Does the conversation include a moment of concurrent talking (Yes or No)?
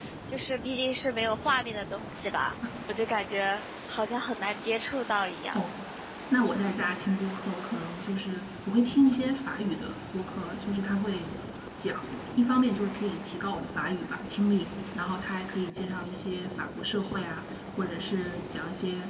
No